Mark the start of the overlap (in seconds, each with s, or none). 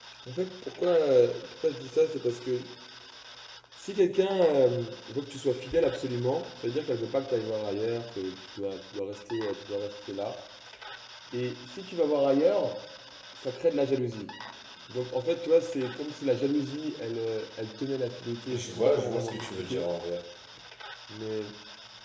18.5 s